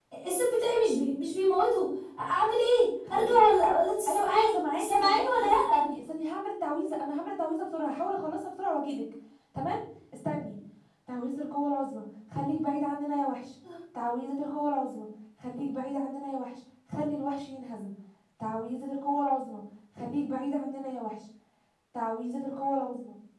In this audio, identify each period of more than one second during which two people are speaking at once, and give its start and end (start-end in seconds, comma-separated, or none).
4.1-5.5